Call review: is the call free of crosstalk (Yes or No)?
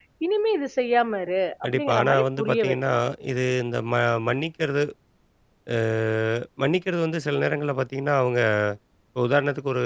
No